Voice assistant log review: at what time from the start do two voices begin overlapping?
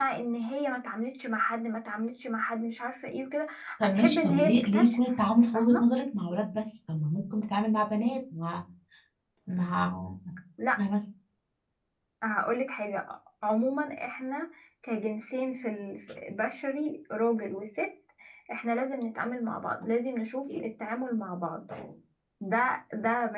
4 s

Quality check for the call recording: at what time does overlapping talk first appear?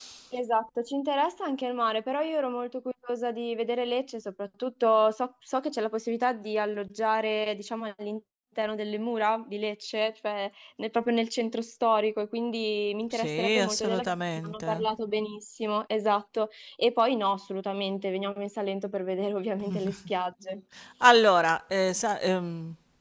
13 s

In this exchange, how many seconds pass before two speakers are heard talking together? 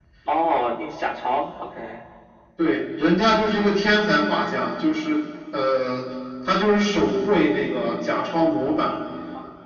none

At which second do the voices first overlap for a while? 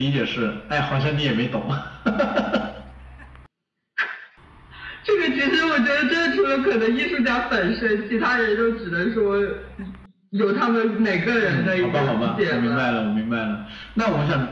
11 s

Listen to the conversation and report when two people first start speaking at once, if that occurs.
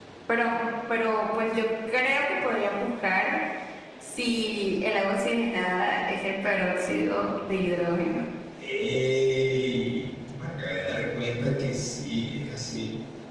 none

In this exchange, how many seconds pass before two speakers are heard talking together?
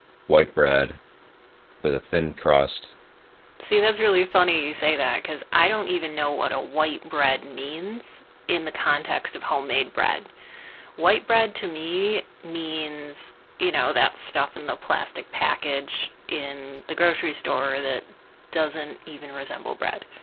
none

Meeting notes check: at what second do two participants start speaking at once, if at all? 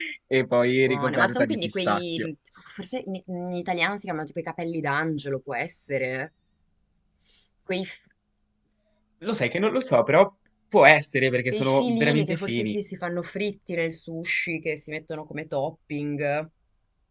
1 s

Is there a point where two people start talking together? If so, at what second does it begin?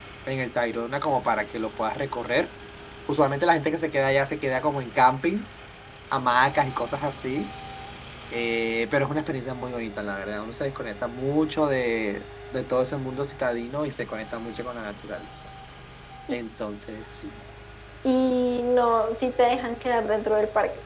none

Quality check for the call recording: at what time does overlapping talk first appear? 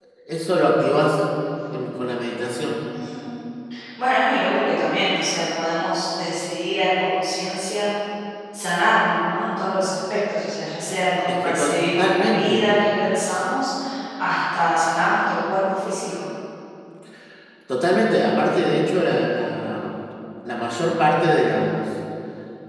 11 s

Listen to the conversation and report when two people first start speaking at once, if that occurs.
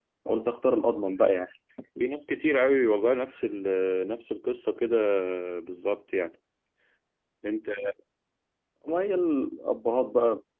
none

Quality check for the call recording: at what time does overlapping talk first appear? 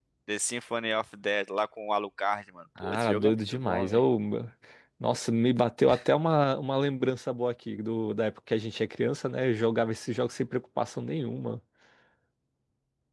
3 s

